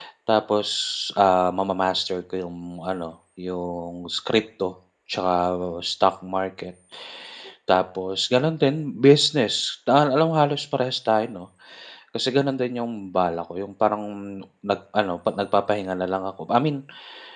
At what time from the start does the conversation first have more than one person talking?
none

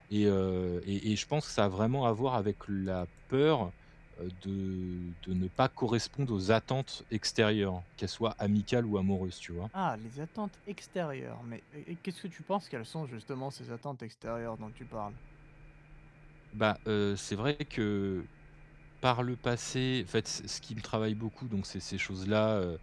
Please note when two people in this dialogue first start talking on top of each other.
none

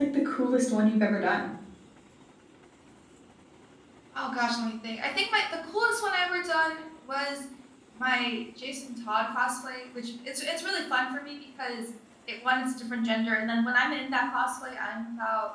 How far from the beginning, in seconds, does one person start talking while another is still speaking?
none

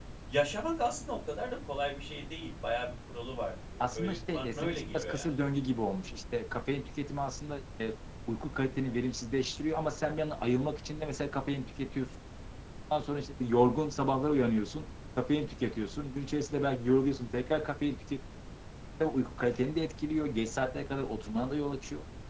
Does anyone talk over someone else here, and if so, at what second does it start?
4 s

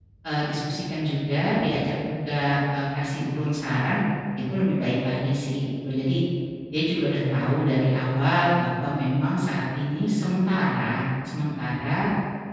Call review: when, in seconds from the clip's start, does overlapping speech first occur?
none

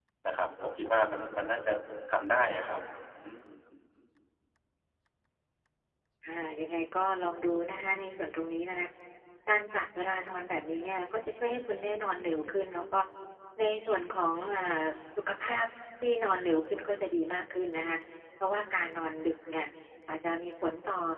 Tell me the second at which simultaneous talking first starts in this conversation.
none

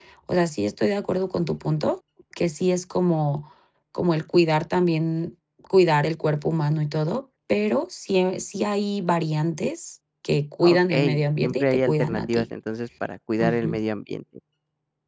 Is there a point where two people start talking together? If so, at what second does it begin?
11 s

